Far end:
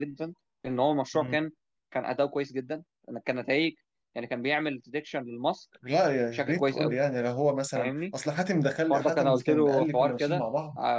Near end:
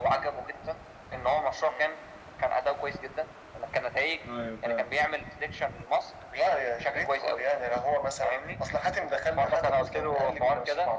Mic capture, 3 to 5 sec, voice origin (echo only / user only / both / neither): both